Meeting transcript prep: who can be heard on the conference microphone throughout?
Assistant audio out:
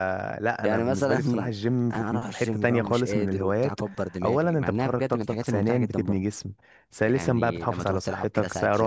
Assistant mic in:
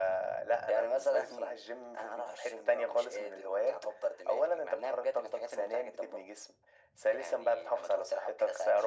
echo only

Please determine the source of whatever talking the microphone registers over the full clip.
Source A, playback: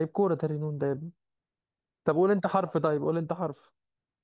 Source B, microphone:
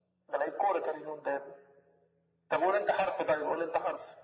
echo only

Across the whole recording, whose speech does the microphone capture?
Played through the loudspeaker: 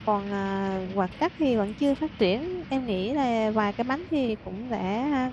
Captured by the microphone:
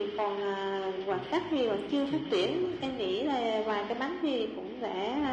both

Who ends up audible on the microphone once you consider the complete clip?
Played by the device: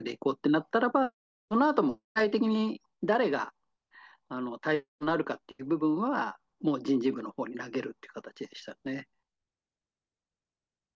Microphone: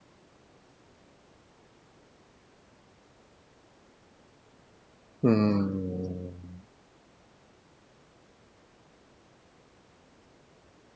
user only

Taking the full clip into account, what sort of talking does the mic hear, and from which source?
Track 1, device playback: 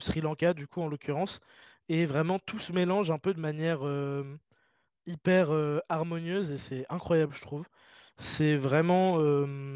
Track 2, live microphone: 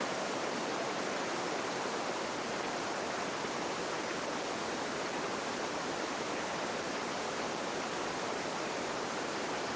neither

